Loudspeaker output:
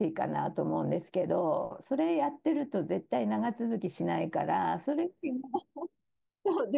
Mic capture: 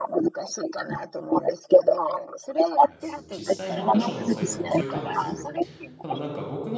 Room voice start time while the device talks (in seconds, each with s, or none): 2.8 s